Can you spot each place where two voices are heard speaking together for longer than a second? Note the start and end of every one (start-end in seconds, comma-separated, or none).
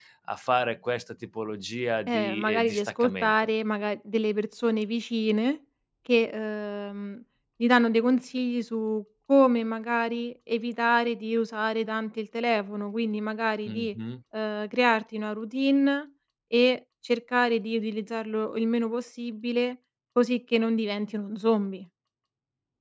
2.1-3.3